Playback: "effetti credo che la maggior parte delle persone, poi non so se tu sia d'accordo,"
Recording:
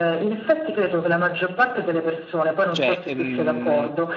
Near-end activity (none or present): present